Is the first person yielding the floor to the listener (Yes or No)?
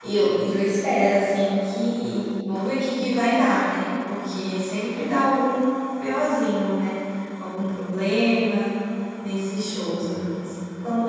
No